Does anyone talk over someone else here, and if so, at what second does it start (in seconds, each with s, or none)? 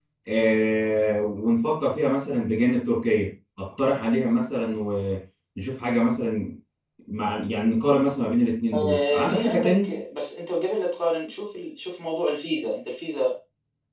8.7 s